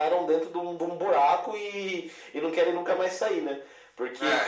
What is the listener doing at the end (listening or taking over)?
listening